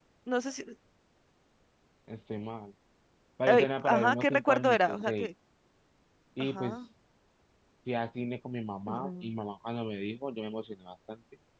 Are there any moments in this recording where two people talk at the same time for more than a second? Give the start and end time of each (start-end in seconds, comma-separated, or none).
3.5-5.3